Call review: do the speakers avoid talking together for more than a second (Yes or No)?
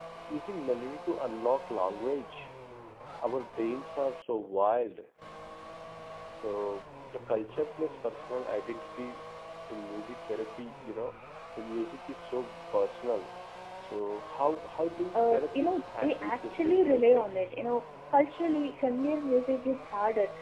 No